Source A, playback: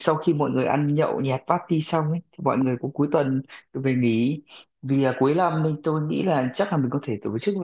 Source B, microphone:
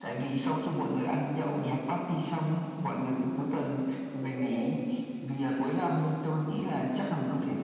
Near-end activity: present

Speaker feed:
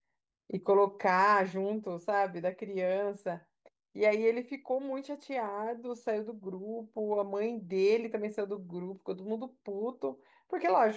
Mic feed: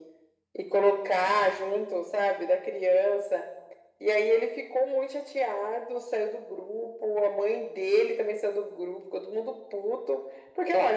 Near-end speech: none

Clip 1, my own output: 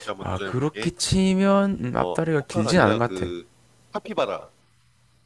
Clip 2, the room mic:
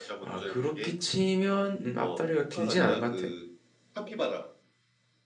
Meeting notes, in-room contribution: none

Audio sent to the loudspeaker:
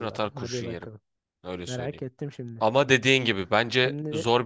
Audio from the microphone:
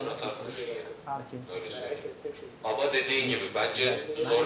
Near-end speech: present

